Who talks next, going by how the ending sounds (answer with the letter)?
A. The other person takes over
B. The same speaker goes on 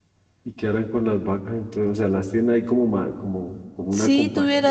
A